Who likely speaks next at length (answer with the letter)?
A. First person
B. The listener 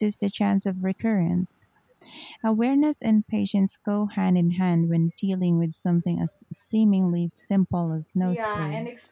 B